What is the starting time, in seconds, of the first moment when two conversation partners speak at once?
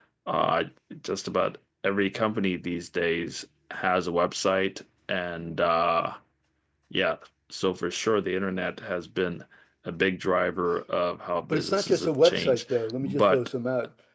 11.5 s

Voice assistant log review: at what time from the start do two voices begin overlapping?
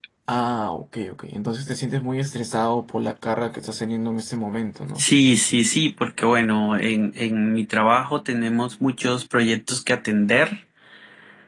none

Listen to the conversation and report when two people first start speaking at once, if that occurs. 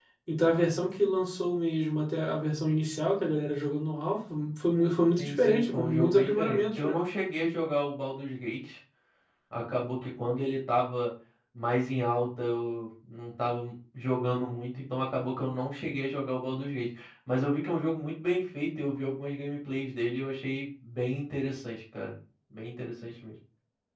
5.2 s

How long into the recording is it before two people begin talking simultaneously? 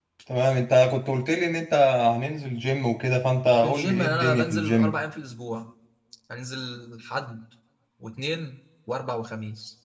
3.6 s

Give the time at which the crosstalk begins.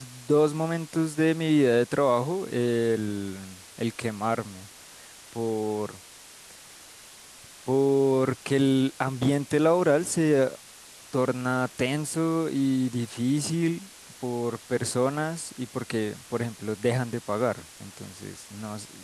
none

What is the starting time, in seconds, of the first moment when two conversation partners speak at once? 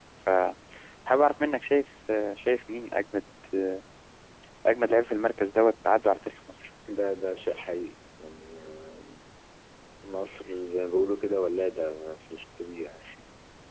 none

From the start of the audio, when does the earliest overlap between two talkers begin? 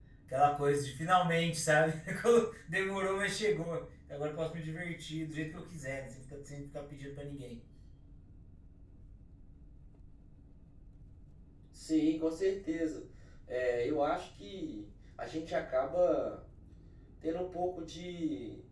none

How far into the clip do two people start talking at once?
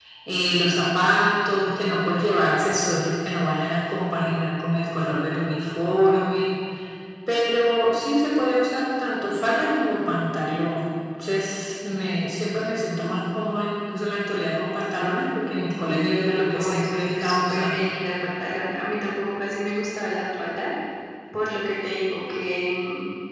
16.6 s

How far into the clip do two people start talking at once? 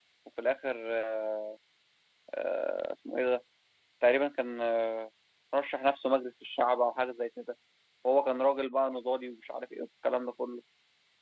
none

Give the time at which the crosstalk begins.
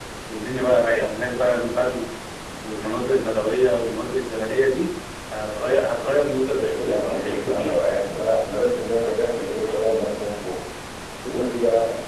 6.5 s

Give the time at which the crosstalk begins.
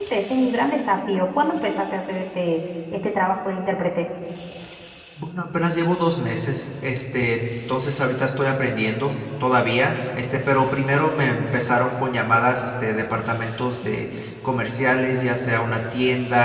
none

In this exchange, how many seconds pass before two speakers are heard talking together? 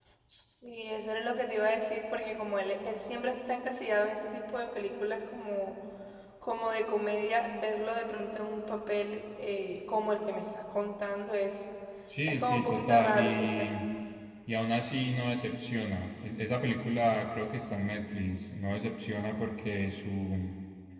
12.3 s

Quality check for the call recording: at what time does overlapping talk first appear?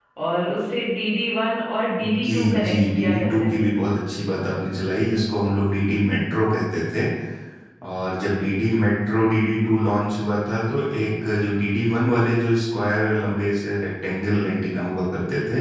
2.2 s

